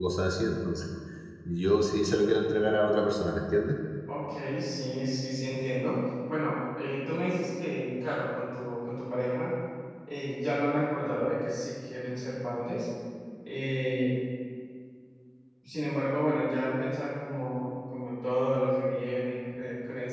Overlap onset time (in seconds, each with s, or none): none